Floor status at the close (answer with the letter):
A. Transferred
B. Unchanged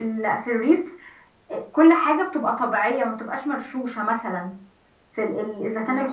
B